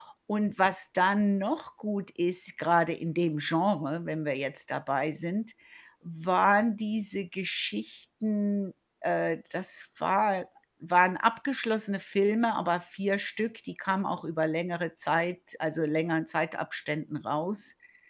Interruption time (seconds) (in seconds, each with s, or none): none